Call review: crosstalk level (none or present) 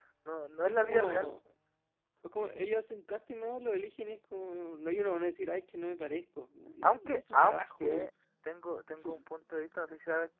present